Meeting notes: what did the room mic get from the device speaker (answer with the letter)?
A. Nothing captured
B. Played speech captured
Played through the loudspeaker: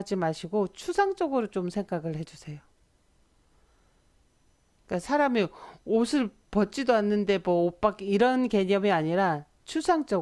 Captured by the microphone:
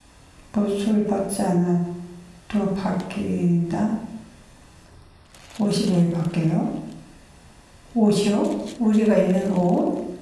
A